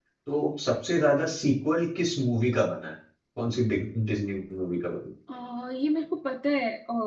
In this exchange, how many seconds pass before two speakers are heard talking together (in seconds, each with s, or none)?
none